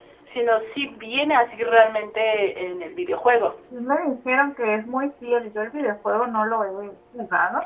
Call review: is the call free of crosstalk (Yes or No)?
Yes